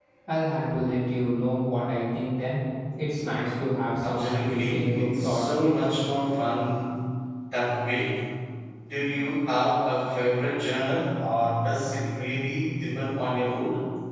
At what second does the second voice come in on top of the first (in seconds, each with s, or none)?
4.0 s